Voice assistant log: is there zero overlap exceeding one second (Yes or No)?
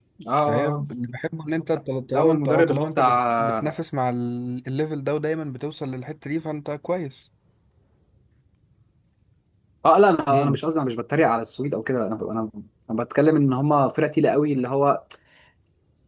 No